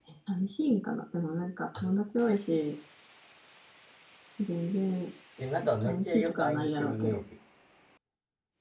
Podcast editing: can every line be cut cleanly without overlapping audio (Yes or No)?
No